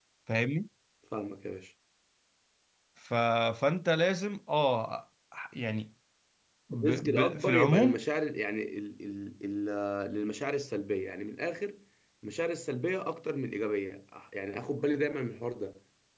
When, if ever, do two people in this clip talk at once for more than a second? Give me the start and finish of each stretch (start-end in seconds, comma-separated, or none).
6.7-8.0